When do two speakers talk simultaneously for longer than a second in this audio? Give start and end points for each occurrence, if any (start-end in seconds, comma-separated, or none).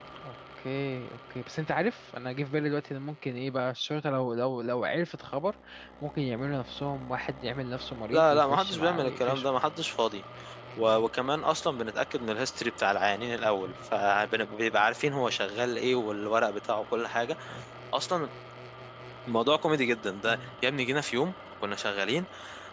8.1-9.4